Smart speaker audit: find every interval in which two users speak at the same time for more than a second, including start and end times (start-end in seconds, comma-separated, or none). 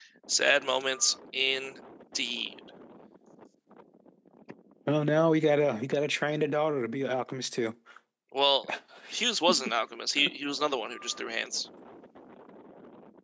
none